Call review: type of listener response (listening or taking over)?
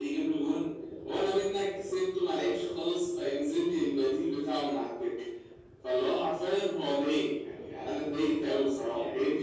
taking over